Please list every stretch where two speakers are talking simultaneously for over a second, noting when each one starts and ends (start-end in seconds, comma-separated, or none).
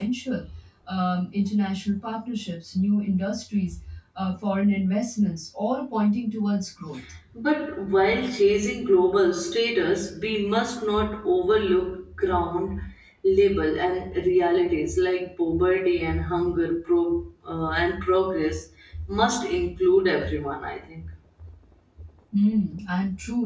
none